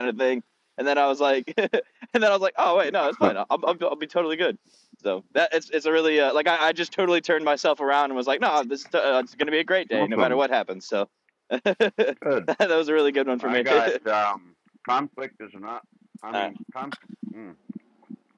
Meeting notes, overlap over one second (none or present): none